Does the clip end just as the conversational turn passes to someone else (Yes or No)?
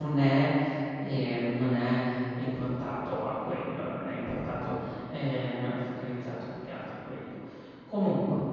No